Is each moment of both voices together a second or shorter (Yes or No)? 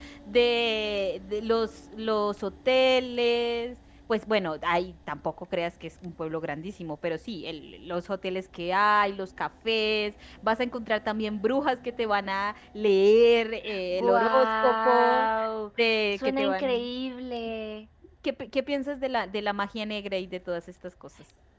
No